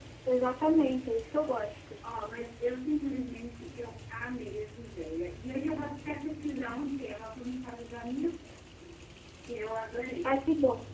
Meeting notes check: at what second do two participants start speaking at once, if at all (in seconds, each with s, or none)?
none